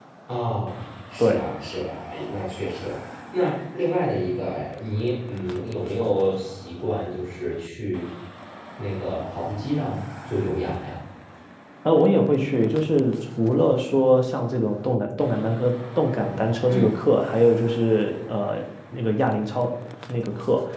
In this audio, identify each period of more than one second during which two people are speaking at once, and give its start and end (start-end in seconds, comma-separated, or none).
none